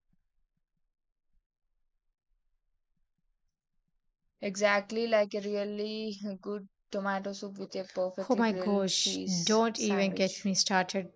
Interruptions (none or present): present